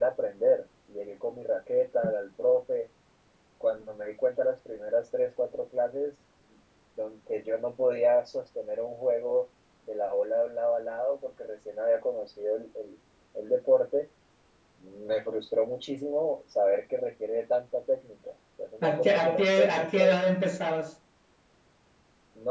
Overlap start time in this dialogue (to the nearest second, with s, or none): 19 s